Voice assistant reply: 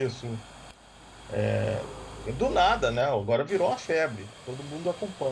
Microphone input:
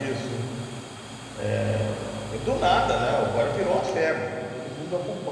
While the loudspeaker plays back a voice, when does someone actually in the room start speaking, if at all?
none

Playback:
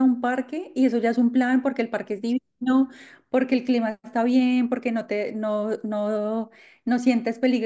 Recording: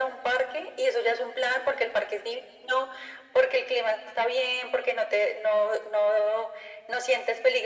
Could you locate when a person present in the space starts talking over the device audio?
none

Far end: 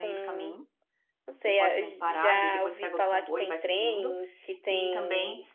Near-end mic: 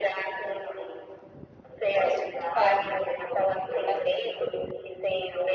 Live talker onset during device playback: 2.0 s

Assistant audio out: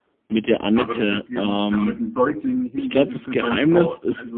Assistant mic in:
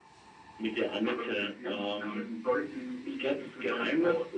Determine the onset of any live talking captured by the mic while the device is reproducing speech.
none

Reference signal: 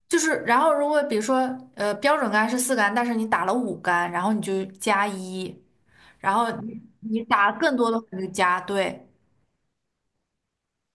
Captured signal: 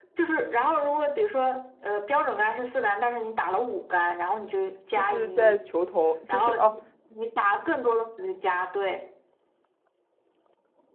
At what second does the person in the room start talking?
4.9 s

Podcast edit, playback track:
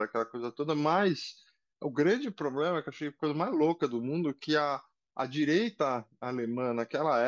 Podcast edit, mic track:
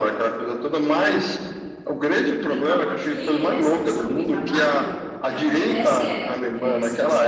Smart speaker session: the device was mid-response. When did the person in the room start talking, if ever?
2.4 s

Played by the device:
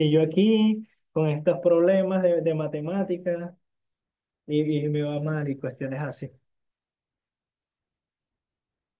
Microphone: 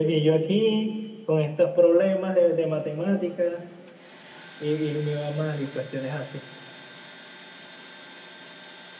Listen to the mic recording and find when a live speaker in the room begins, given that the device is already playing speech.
none

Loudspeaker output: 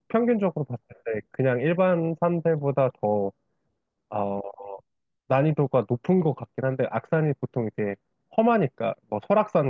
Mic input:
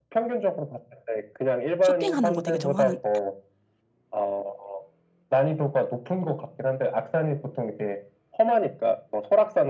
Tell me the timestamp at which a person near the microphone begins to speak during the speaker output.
1.8 s

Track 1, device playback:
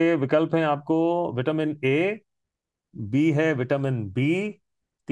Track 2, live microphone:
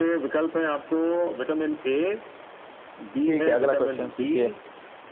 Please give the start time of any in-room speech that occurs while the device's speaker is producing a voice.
3.3 s

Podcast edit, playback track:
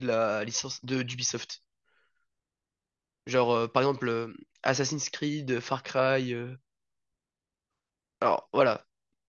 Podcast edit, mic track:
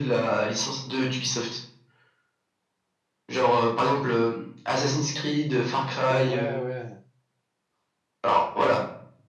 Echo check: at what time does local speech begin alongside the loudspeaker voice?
6.1 s

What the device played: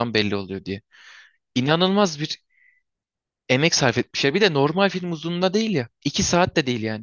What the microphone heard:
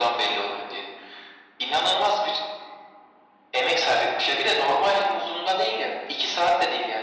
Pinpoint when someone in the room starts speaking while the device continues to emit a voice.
none

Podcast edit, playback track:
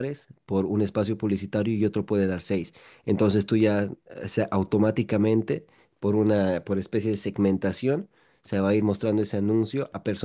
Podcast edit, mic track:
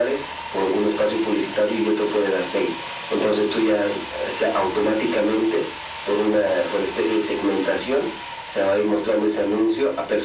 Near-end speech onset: none

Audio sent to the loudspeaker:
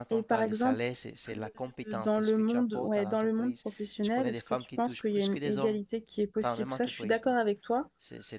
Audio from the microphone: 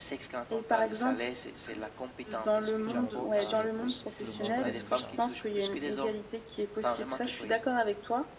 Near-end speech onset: 2.8 s

